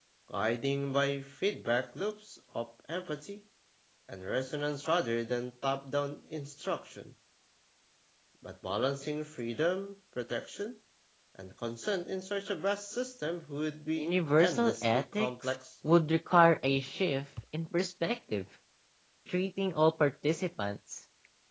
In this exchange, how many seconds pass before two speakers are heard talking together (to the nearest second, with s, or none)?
14 s